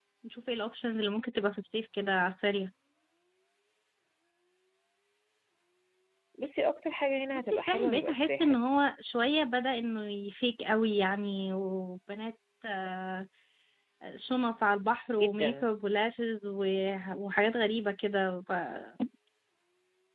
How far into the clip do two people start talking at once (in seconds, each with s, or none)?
7.3 s